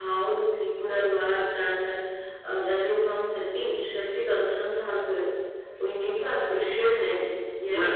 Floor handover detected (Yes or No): Yes